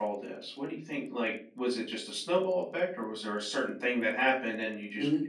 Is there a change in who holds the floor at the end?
Yes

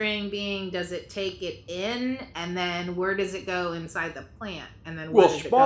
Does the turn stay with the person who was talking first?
No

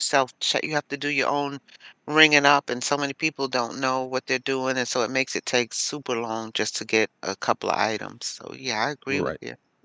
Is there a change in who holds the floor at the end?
Yes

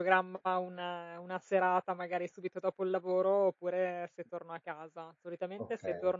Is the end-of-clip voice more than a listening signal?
No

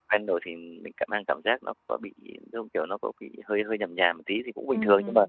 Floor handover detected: Yes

